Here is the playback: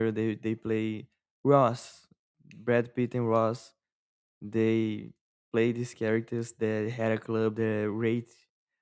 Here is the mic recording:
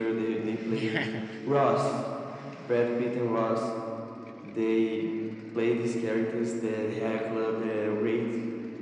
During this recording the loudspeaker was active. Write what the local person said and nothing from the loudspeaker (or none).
Yeah.